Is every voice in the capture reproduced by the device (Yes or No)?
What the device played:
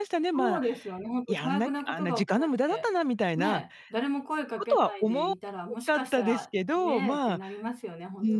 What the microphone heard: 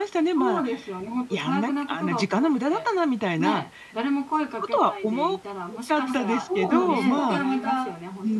No